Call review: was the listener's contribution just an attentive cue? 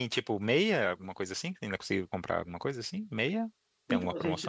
No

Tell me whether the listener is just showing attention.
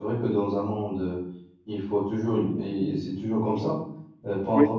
Yes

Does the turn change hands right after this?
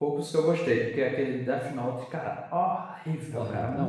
Yes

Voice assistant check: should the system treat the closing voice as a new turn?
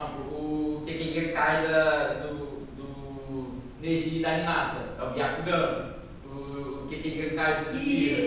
Yes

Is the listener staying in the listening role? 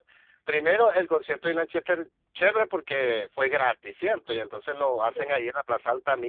Yes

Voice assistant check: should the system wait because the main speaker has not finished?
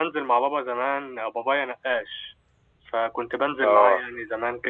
Yes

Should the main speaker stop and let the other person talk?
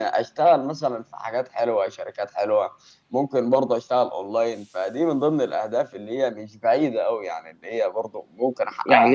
Yes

